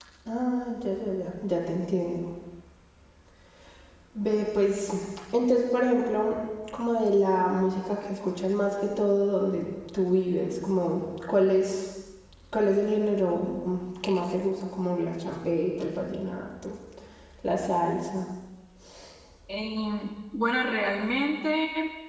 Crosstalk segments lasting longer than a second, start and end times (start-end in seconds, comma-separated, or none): none